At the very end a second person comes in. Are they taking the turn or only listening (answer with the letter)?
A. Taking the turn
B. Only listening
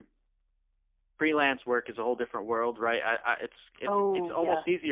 B